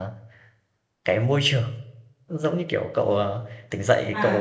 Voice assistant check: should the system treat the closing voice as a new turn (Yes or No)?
Yes